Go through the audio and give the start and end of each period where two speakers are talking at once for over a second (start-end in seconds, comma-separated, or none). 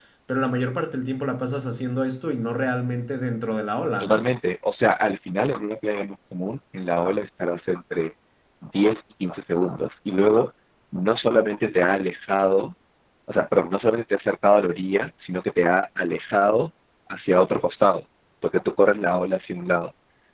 none